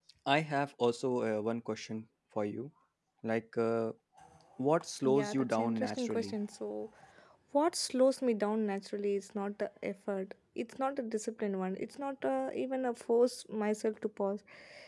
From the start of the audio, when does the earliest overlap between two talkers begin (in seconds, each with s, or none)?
5.0 s